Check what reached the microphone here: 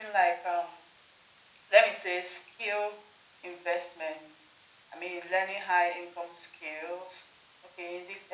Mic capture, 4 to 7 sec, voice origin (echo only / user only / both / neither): echo only